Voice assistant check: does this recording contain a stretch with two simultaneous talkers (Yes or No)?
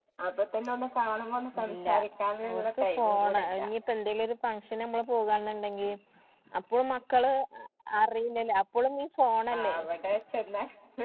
Yes